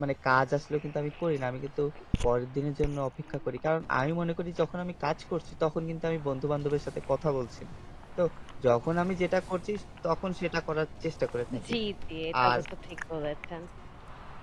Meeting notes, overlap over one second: none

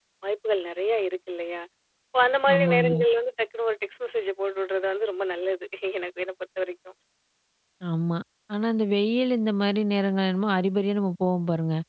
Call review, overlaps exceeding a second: none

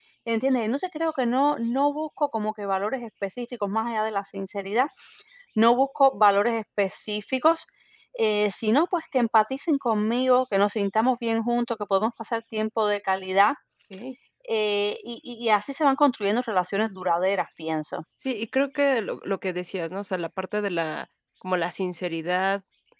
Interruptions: none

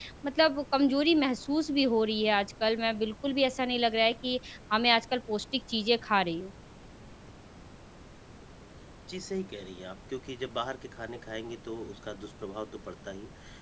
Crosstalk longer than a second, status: none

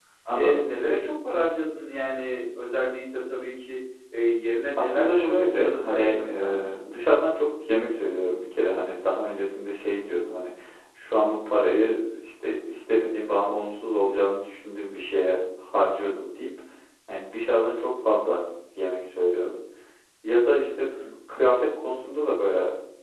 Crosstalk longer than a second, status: present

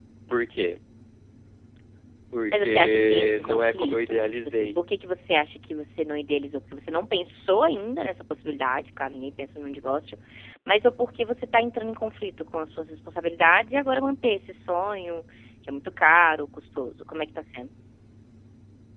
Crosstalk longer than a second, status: present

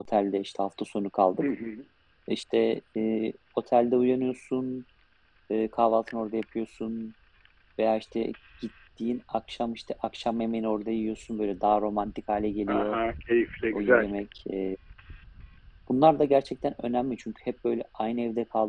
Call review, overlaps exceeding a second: none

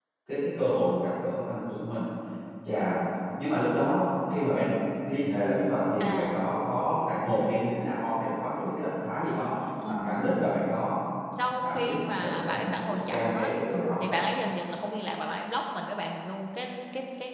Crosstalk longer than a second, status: present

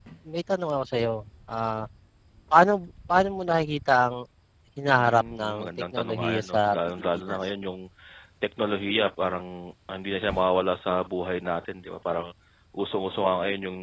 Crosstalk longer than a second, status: present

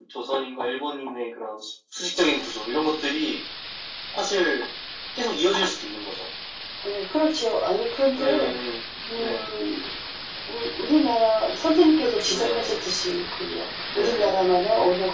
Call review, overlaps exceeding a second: none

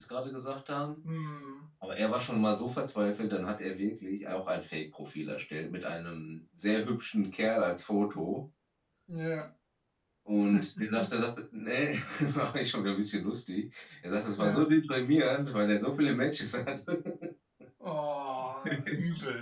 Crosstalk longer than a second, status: none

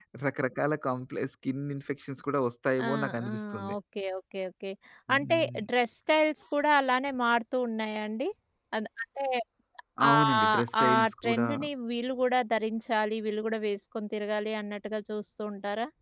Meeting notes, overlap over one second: present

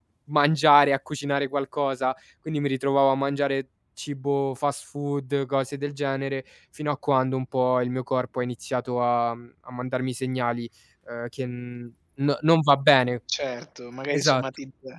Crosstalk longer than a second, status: none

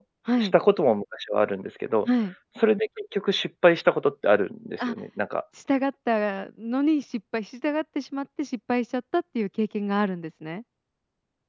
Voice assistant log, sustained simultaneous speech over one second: none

